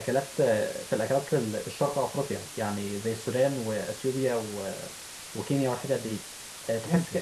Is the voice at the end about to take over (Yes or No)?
No